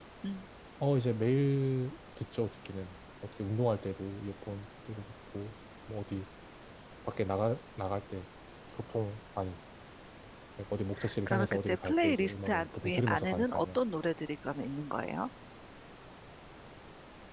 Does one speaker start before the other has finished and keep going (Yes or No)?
Yes